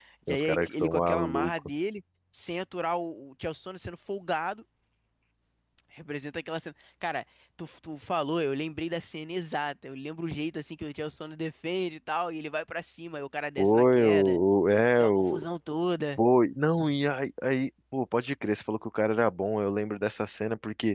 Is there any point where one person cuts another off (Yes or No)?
Yes